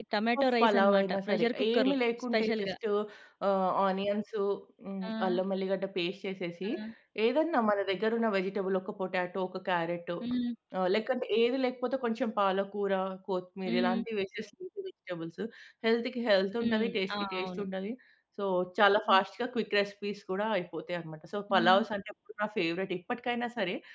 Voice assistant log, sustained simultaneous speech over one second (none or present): present